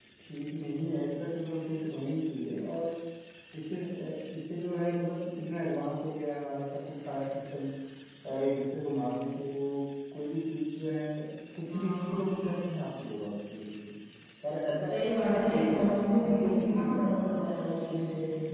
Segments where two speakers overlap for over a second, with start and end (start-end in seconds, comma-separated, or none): 14.8-17.2